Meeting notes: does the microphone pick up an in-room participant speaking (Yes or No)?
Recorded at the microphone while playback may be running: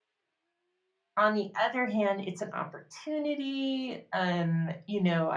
Yes